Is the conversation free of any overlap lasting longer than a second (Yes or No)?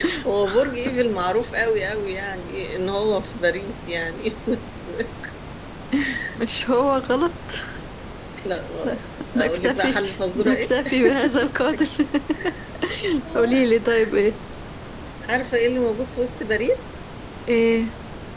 No